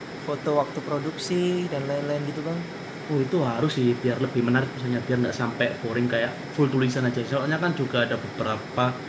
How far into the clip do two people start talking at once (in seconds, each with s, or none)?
none